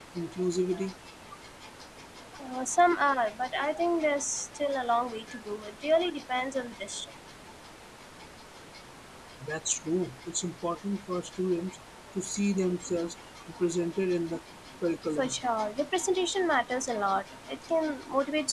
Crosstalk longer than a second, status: none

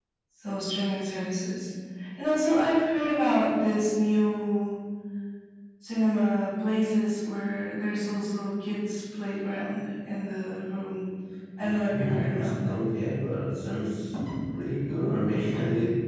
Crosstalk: present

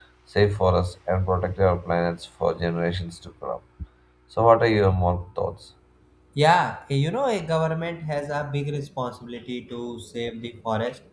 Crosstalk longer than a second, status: none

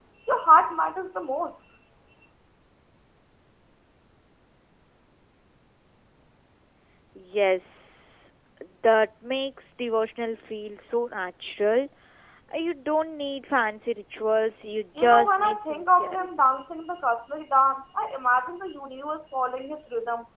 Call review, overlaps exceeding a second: present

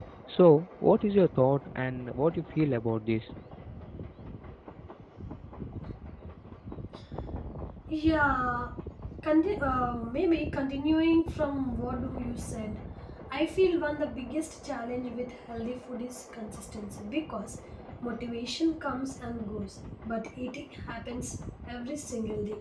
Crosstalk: none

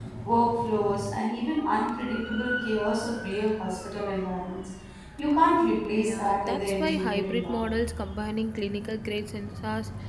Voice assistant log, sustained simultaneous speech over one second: present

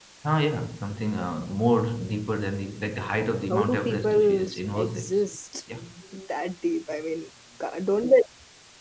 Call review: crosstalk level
present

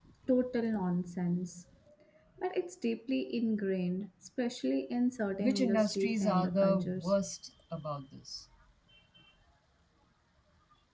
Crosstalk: present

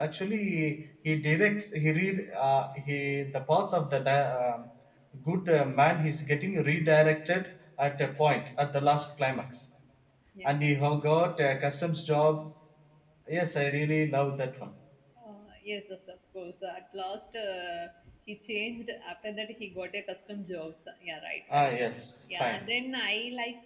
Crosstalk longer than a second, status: none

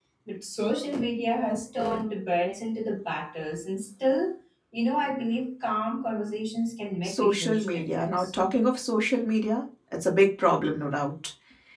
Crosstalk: present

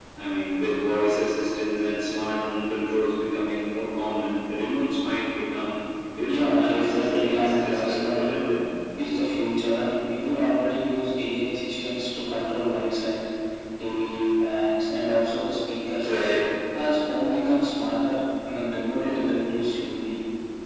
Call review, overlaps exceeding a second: present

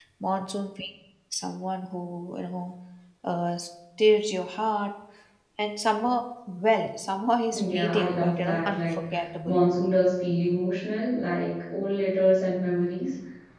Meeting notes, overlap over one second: present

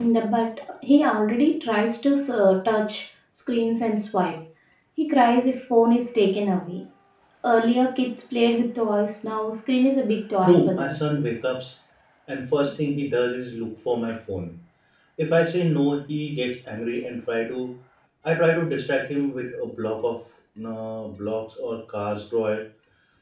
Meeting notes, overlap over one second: none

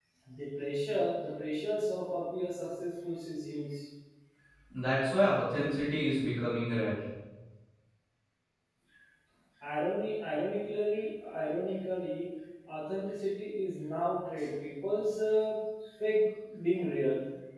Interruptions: none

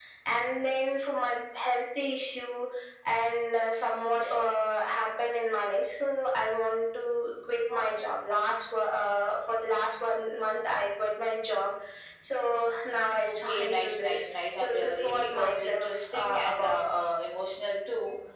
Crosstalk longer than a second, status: present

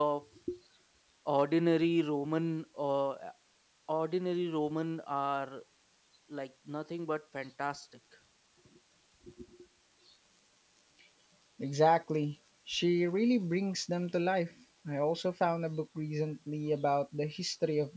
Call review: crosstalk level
none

